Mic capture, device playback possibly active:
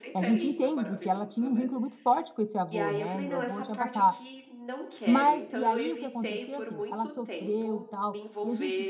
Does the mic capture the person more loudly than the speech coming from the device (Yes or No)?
Yes